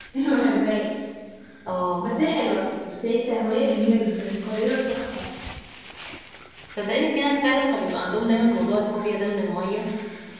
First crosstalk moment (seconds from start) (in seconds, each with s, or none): none